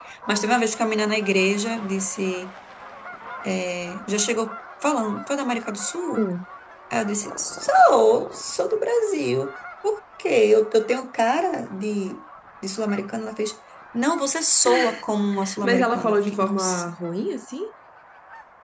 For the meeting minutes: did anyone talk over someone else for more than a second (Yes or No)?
Yes